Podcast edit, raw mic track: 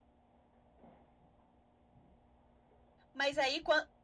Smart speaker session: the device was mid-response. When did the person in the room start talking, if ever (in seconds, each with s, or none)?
3.1 s